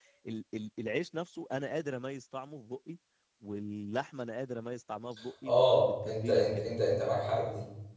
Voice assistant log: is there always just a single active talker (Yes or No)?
No